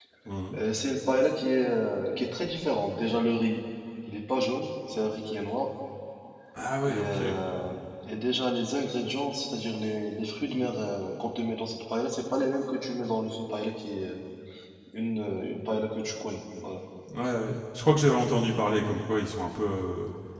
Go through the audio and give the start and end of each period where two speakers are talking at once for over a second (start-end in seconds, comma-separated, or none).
none